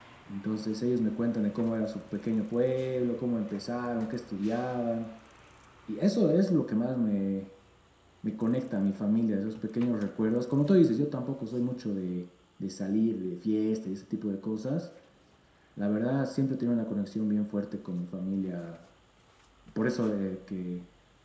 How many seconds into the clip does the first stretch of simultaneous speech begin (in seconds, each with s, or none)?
none